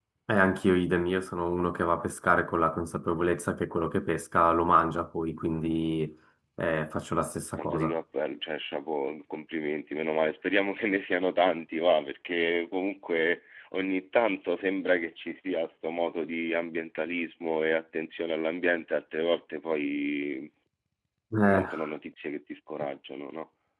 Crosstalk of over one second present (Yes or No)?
No